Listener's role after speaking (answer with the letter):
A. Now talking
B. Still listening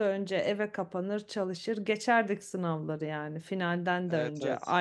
B